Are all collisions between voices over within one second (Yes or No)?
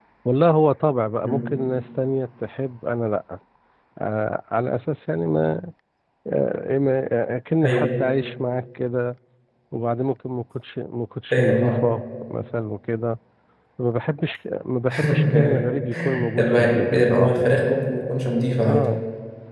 No